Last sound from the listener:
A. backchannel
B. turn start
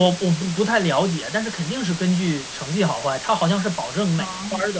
A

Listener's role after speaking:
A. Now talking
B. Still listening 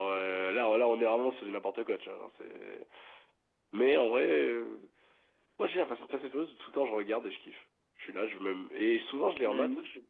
A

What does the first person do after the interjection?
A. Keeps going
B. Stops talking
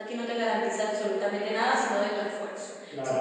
B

